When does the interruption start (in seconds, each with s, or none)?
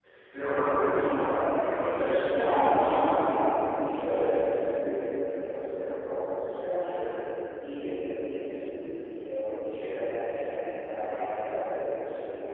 2.2 s